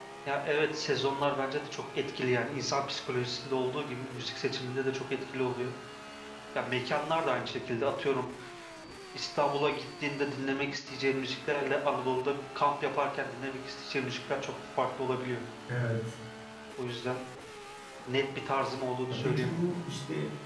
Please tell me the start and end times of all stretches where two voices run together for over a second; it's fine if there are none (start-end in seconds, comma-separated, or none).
none